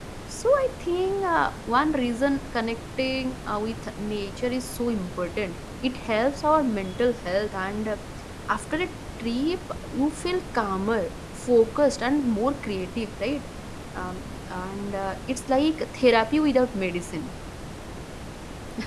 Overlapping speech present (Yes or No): No